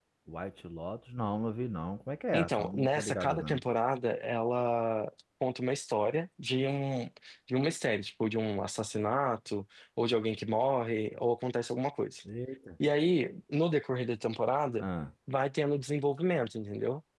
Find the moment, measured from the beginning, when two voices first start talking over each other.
2.3 s

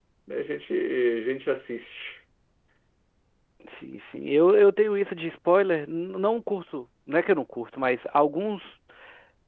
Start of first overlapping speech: none

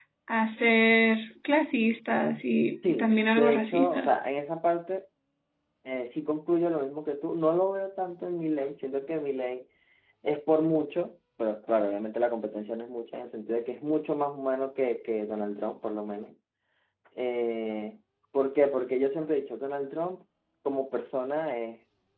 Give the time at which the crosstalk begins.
2.8 s

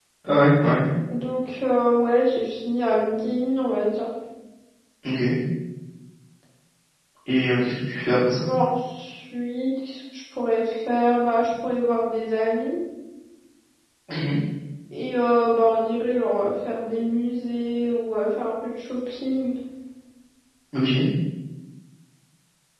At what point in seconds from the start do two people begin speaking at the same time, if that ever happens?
none

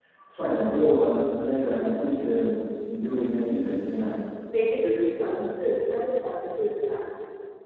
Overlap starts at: none

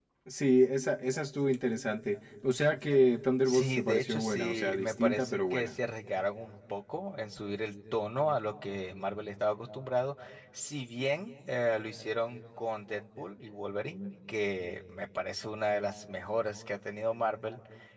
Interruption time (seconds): 3.5 s

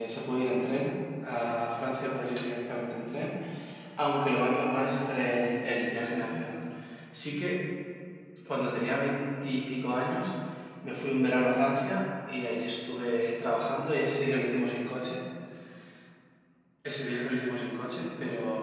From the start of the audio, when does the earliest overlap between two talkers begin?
none

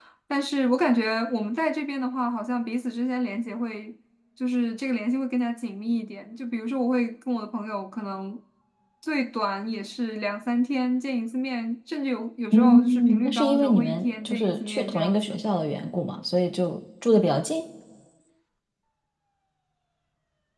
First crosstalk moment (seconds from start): 12.5 s

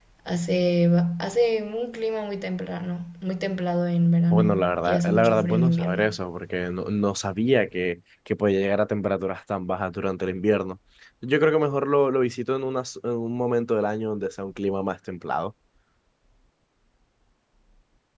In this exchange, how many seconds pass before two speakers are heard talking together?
4.3 s

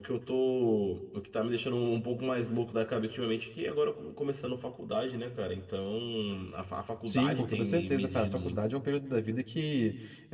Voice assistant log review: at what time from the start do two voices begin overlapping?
7.1 s

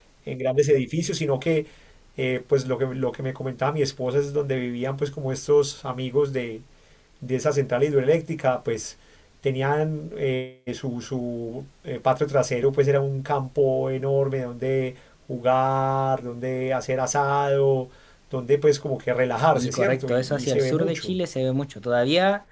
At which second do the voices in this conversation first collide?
19.5 s

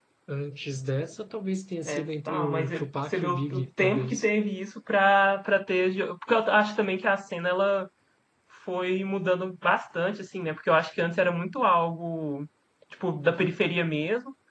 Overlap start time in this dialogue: 1.9 s

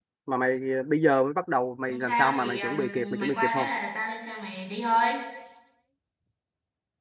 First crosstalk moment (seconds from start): 1.9 s

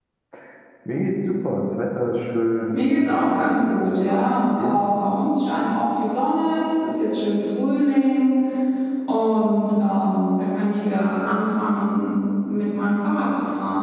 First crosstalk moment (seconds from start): 2.7 s

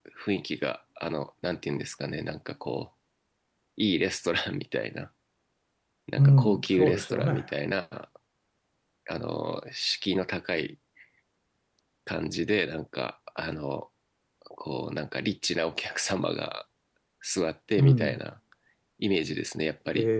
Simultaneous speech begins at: 6.2 s

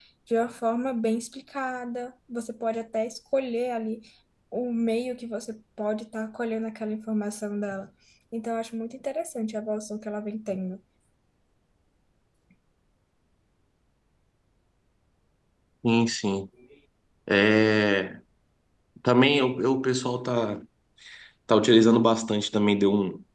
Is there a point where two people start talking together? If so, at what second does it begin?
none

